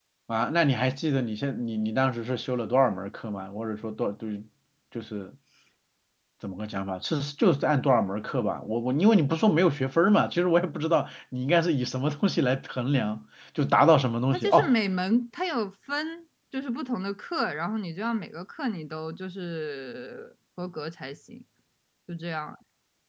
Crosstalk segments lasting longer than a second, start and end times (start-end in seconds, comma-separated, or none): none